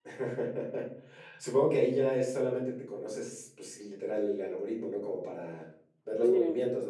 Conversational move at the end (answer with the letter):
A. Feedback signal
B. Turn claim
B